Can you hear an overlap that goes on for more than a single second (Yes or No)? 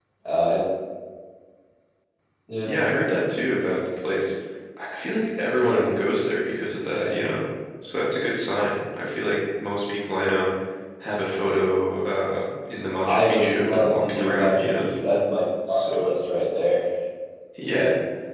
Yes